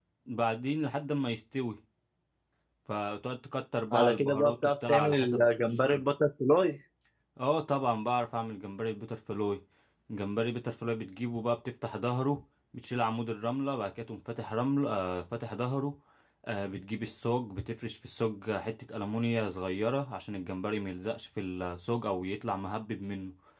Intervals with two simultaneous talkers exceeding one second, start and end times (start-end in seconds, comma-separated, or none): 3.9-6.0